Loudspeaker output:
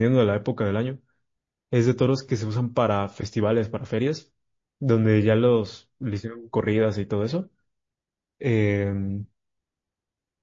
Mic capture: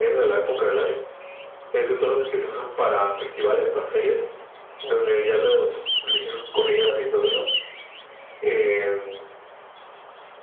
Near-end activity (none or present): none